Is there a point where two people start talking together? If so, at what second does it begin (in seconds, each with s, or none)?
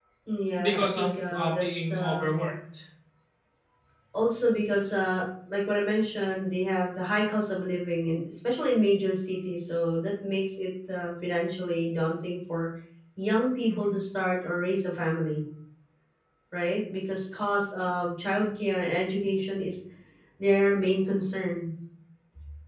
0.6 s